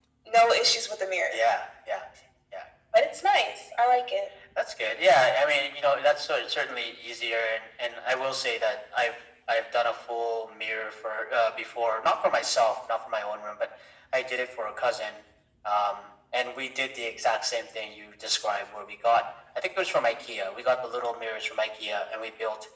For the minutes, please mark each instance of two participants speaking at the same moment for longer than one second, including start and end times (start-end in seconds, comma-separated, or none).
none